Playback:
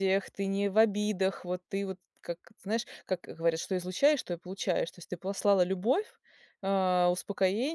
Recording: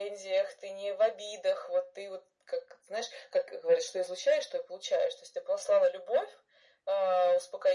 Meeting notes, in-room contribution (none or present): none